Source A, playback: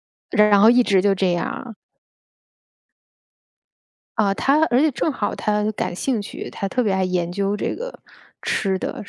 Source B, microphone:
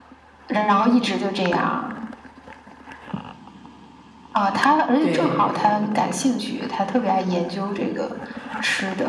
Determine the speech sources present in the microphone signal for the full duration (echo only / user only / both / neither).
both